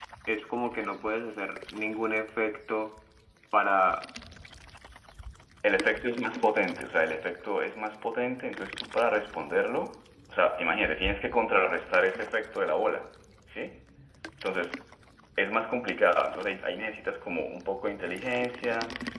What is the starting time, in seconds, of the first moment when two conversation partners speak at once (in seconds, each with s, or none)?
none